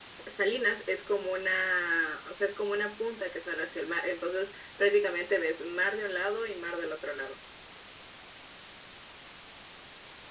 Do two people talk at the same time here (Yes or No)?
No